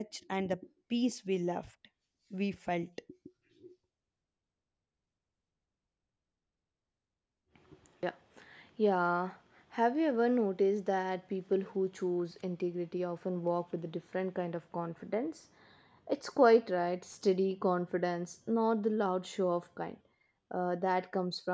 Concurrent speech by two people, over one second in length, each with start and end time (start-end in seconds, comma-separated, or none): none